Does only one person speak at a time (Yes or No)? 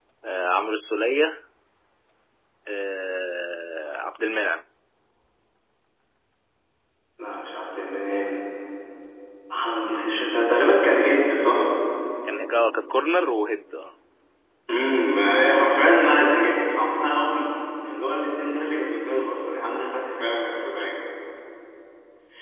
Yes